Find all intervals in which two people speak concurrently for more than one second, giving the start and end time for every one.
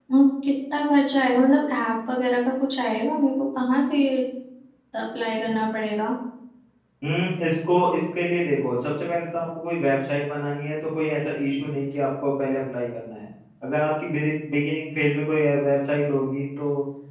none

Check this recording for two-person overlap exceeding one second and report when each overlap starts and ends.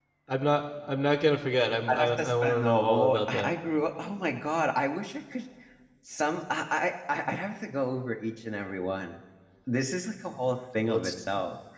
1.9-3.5

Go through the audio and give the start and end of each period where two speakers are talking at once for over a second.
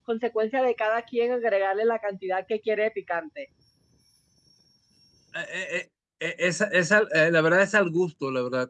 none

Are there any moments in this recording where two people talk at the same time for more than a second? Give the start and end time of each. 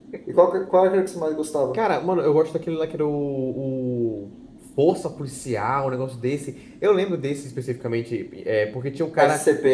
none

